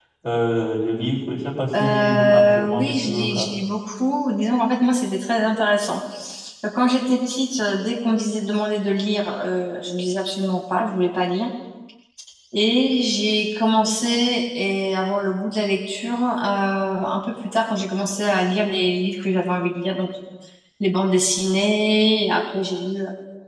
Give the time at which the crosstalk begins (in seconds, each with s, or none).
1.7 s